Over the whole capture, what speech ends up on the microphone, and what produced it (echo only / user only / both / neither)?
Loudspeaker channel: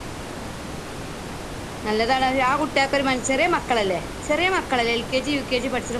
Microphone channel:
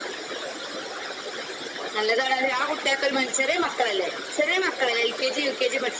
echo only